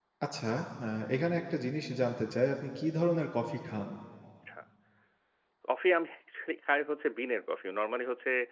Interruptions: none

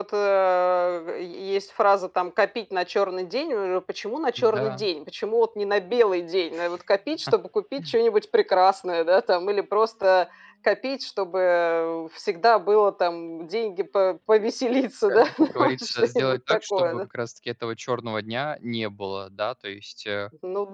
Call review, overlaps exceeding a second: present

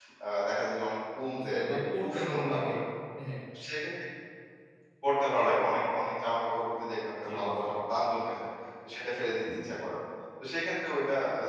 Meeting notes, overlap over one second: present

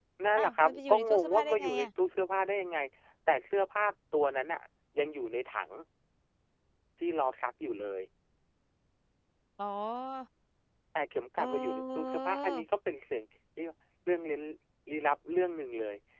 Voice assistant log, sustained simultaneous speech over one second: present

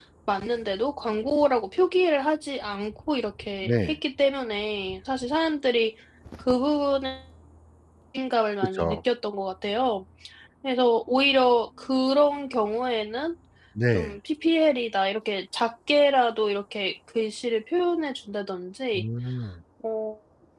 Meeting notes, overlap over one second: none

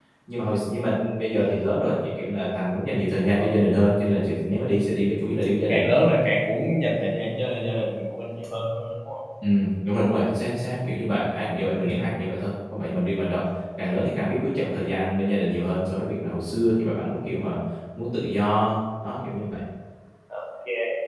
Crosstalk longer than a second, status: none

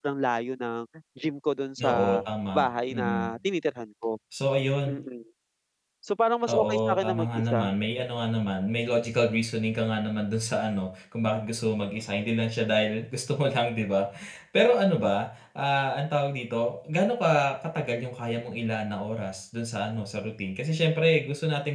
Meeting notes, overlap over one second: present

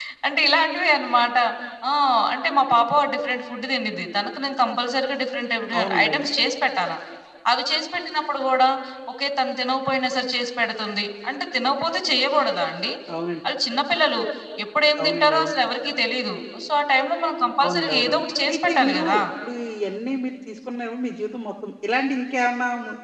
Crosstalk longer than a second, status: present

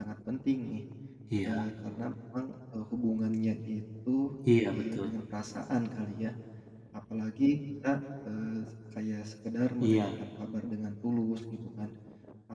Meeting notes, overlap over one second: none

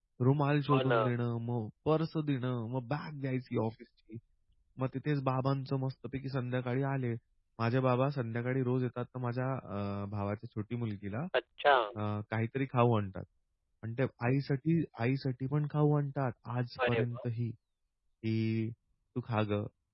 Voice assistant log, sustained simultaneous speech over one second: none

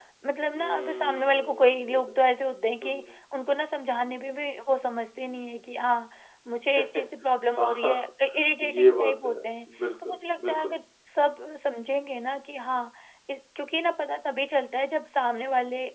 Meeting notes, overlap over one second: present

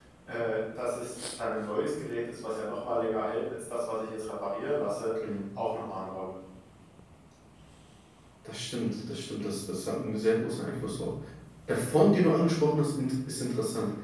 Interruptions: none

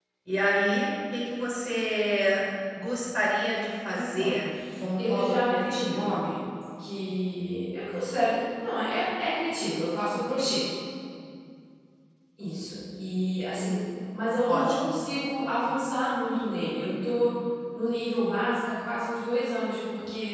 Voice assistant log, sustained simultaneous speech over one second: present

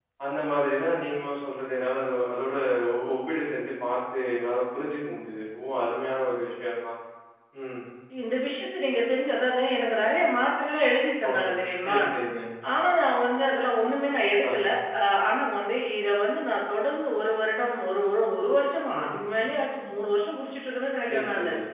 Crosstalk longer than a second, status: none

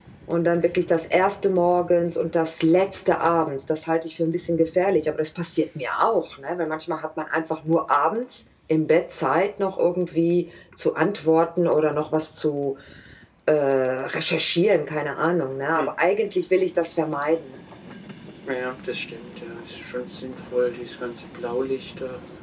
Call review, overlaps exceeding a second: none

